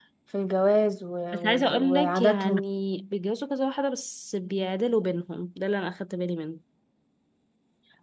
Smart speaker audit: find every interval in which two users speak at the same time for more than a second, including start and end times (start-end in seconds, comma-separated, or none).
1.3-2.6